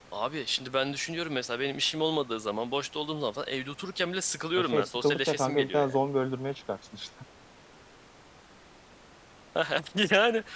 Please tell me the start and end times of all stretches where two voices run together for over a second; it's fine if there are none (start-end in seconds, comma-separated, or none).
4.6-6.0